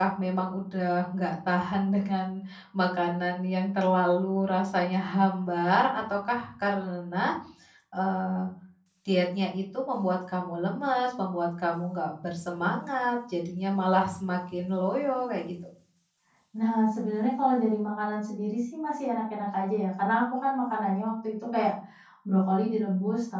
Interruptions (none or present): none